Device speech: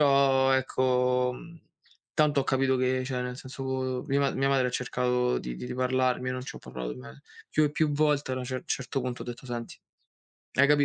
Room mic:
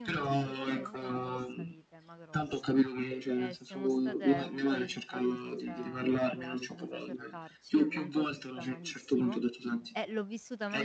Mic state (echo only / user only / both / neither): both